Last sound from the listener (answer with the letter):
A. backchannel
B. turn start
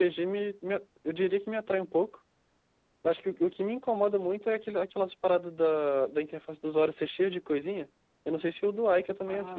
B